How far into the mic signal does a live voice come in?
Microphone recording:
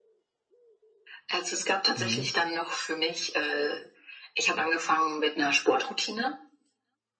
2.0 s

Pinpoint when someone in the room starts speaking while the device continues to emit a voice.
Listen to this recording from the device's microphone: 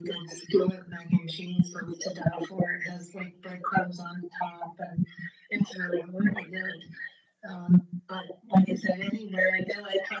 none

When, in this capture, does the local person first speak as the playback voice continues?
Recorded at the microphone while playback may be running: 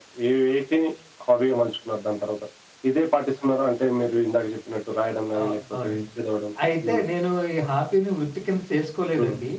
5.4 s

